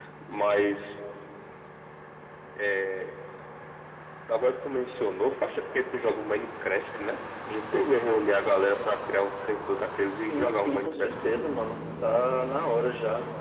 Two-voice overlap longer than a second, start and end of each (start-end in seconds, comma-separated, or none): 10.3-11.6